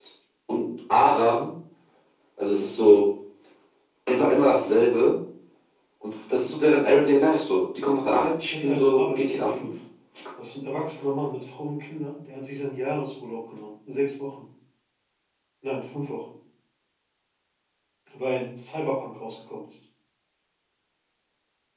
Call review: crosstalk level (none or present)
present